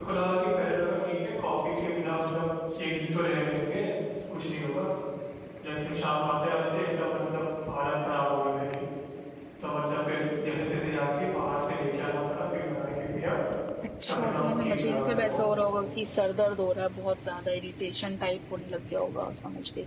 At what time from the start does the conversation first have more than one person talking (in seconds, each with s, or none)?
14.1 s